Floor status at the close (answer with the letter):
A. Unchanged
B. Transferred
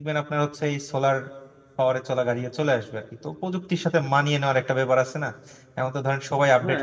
B